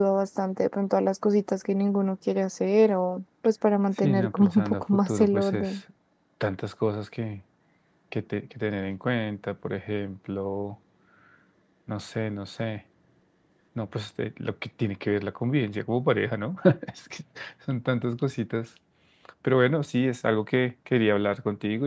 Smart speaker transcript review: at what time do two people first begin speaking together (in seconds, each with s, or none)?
4.0 s